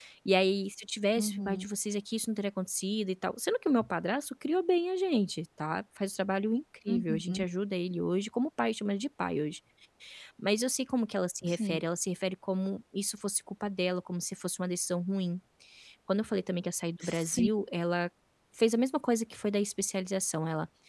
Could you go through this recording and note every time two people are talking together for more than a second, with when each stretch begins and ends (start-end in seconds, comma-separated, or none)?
none